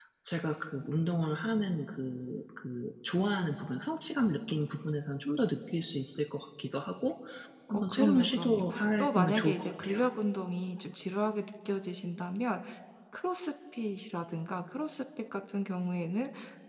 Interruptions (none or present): present